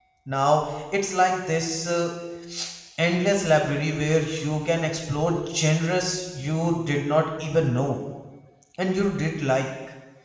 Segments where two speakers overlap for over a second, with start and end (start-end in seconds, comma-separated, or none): none